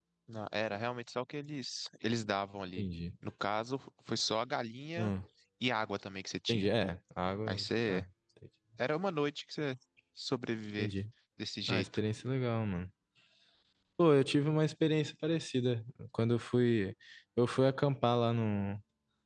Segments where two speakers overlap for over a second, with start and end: none

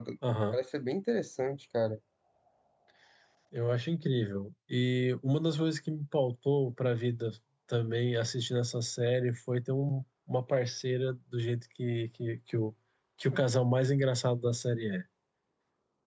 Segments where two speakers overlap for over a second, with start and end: none

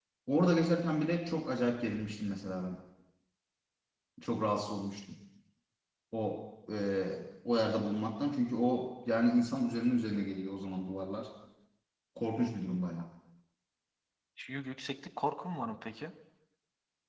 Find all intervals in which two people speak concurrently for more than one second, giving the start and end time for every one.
none

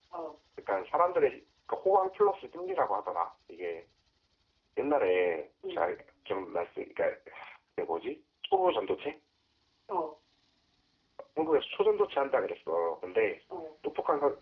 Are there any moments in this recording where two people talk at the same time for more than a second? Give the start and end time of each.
none

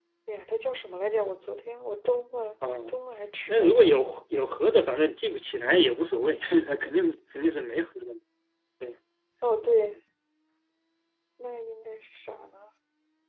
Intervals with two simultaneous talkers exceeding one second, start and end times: none

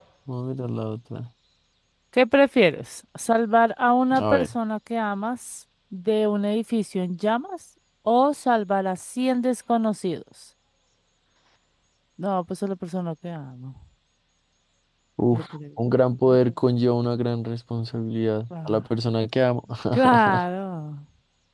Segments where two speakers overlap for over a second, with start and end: none

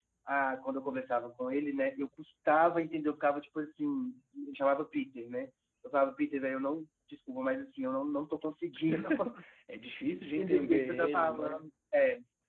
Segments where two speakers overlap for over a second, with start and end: 10.2-11.7

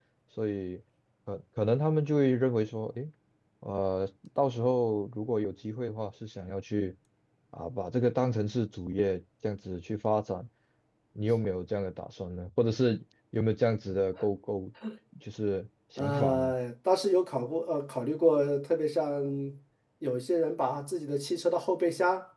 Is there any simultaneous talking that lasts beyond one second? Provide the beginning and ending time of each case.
none

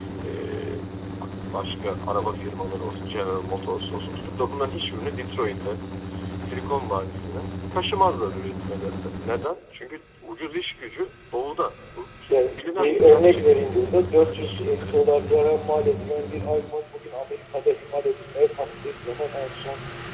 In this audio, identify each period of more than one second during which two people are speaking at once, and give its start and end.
12.3-14.9

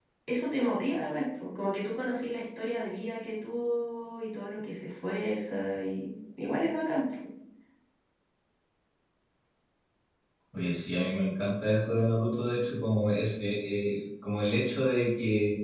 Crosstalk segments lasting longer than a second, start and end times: none

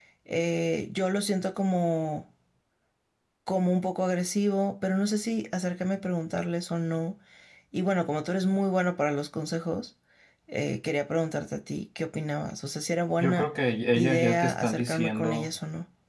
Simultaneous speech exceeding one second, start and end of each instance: 13.9-15.5

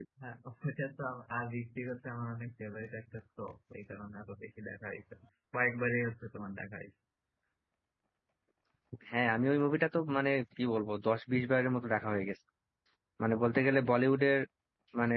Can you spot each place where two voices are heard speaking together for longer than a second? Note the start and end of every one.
none

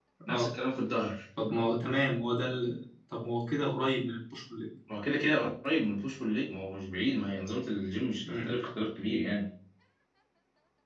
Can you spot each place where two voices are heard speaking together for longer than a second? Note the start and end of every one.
none

